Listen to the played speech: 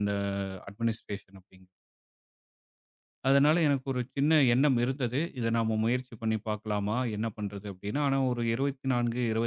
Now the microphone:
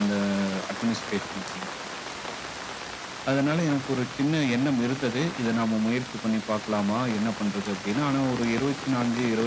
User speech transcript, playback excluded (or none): none